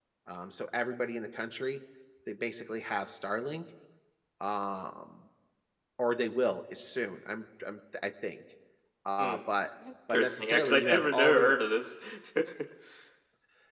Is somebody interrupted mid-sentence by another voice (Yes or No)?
Yes